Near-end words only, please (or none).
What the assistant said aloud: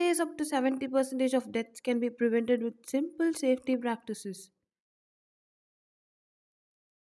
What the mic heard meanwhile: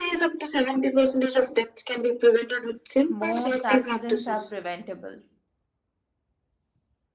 most accidents are preventable.